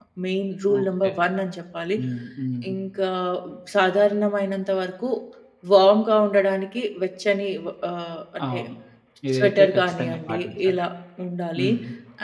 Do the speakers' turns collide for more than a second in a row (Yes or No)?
Yes